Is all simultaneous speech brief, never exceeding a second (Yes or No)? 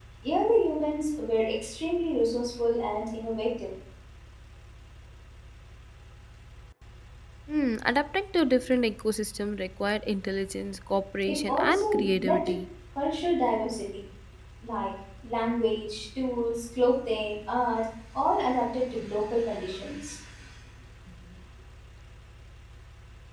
No